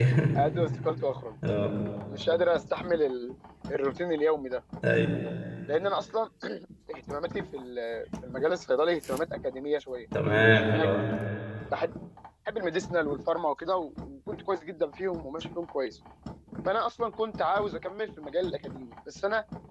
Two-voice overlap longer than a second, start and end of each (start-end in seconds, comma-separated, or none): none